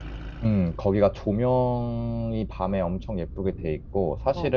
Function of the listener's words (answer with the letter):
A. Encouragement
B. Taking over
A